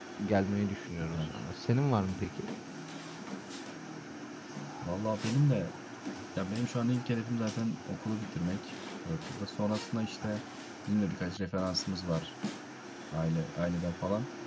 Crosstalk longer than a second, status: none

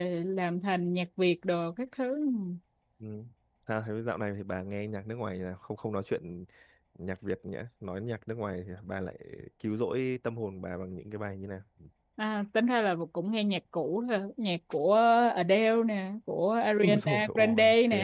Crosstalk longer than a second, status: present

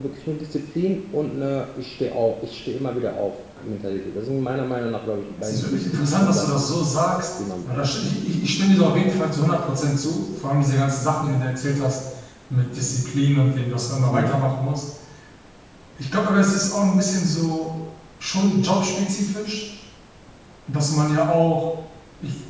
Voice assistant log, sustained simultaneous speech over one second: present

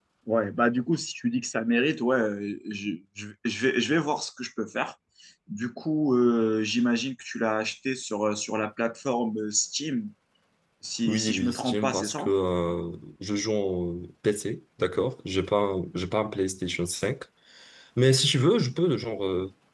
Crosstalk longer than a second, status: present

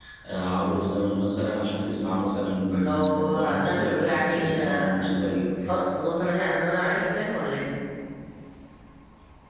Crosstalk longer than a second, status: present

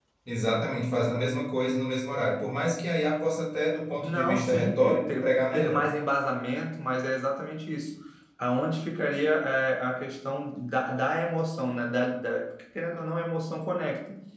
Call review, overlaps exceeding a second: present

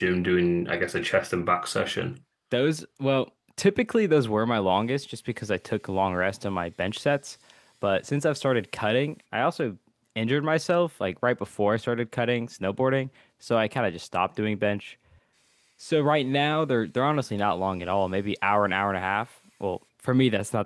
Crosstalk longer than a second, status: none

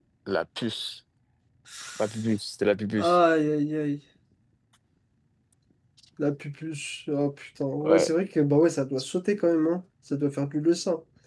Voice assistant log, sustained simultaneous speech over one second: none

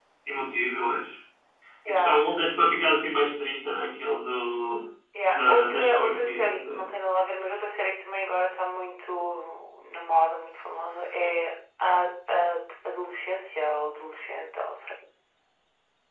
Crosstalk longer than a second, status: present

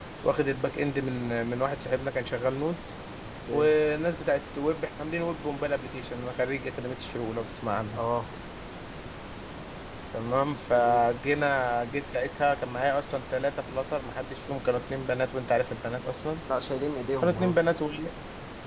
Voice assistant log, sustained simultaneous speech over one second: none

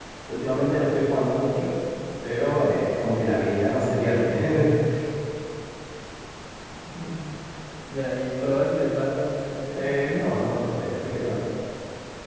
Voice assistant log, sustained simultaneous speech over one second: none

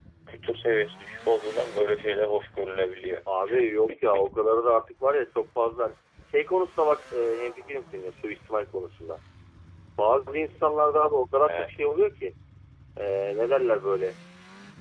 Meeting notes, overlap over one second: none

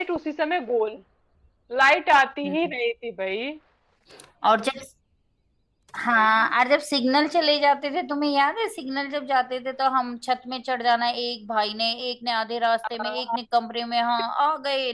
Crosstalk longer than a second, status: none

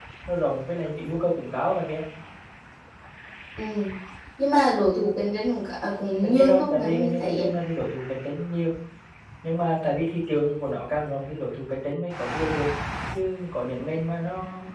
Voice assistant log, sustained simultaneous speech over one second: present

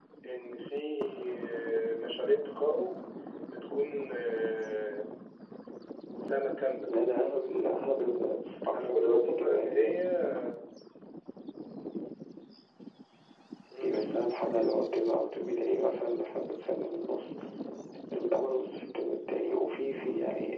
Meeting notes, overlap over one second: present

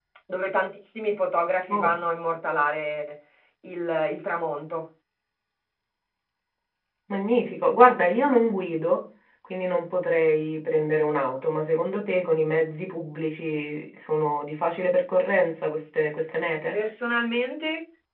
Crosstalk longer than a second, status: none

